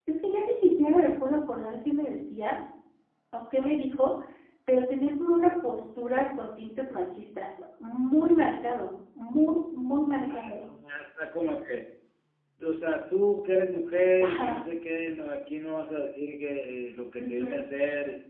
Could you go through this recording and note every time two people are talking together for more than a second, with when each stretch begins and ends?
none

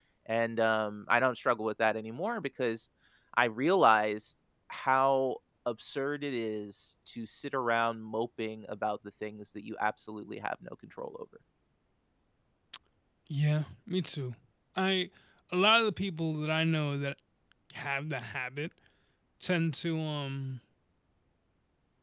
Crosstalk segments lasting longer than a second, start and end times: none

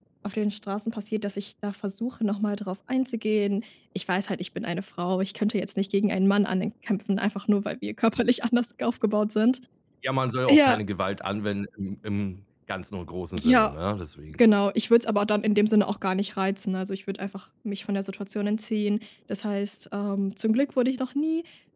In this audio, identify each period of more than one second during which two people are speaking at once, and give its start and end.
none

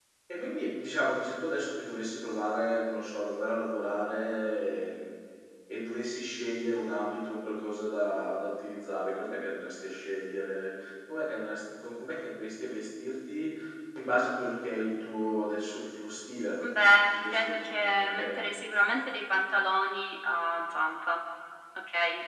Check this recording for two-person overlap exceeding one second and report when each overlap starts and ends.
17.2-18.6

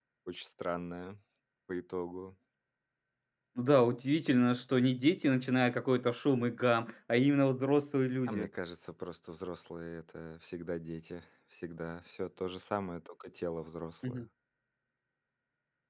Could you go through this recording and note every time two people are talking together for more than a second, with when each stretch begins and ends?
none

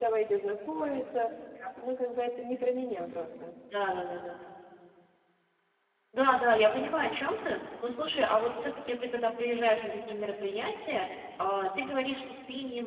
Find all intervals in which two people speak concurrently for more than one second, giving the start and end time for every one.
none

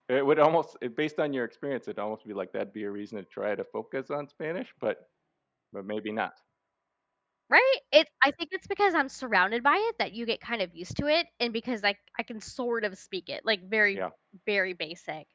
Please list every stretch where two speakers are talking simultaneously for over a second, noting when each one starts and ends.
none

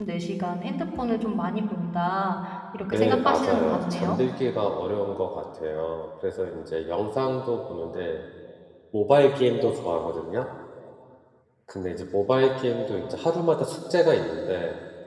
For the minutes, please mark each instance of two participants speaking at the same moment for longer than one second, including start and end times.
2.9-4.2

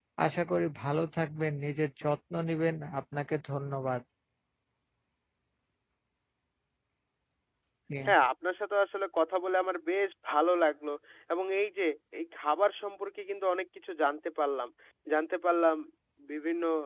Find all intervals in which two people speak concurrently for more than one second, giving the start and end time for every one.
none

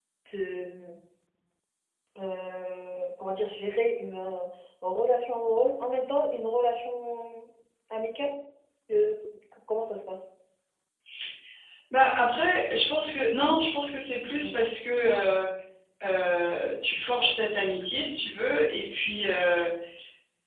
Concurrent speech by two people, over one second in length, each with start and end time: none

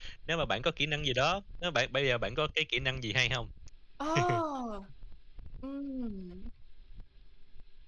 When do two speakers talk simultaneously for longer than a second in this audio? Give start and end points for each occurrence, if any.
none

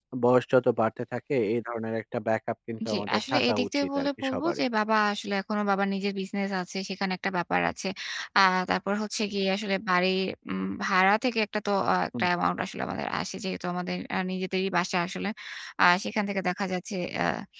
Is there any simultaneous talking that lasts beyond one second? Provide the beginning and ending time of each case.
2.9-4.6

